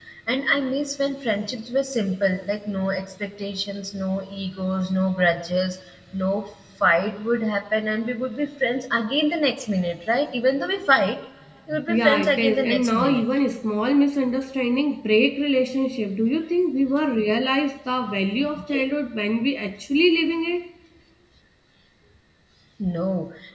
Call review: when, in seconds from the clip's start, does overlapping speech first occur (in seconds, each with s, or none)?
11.9 s